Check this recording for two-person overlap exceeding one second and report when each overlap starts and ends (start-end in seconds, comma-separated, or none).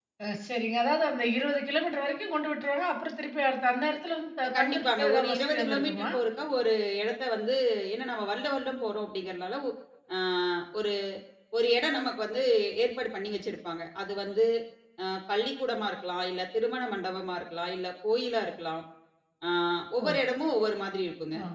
4.6-6.1